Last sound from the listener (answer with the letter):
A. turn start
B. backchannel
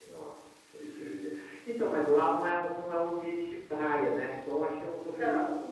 B